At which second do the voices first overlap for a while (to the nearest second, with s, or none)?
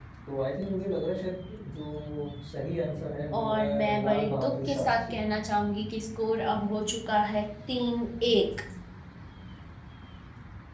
3 s